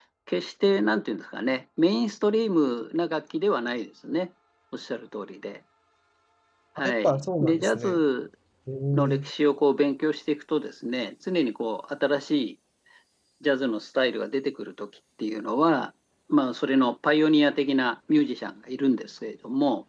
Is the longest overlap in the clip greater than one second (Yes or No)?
Yes